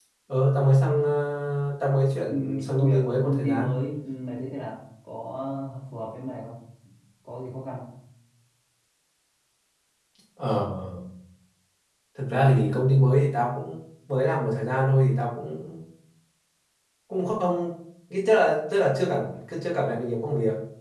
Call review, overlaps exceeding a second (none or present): present